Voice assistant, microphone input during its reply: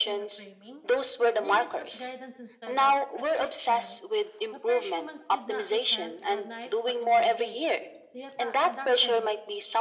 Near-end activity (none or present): present